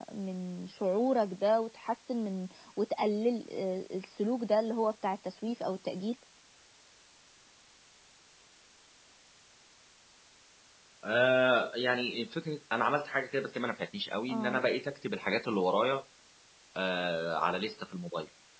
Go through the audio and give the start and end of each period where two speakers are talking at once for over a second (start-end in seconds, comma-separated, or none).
none